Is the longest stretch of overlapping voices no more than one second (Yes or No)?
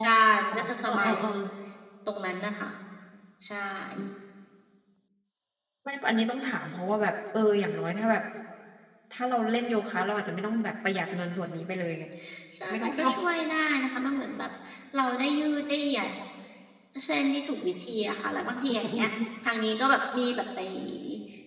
Yes